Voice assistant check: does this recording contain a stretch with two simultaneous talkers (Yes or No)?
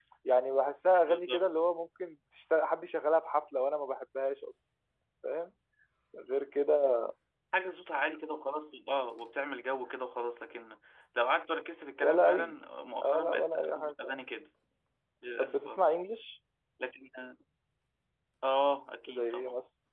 Yes